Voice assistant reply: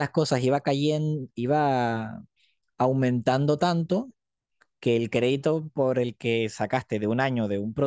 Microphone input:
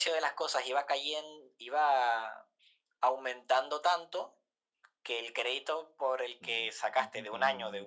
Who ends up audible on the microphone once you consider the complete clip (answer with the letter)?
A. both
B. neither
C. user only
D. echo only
A